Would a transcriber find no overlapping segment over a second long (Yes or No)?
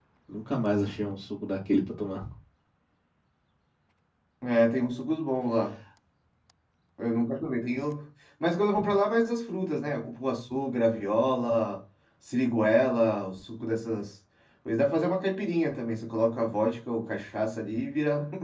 Yes